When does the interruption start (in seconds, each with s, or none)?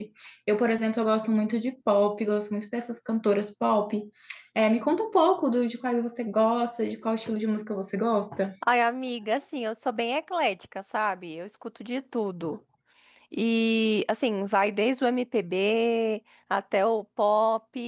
none